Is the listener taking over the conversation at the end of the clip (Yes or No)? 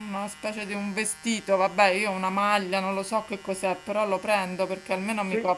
No